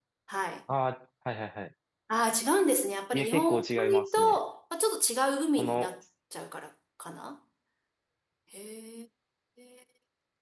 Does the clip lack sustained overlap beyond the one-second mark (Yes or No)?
No